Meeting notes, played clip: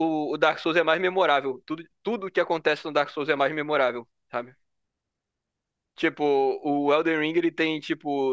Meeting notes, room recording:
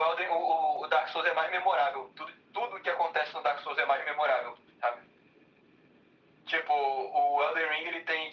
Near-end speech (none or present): none